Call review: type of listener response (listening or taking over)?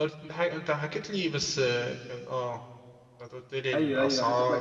taking over